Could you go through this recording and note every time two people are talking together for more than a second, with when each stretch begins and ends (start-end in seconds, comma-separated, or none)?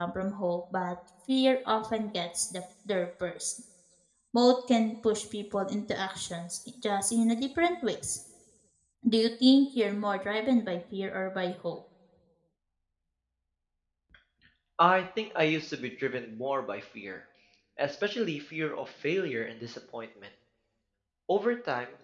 none